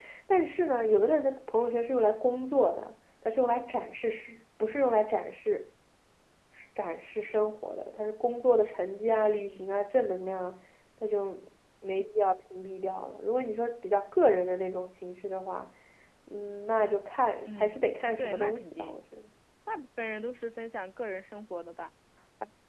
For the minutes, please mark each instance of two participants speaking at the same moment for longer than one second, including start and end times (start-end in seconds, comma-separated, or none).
17.4-19.0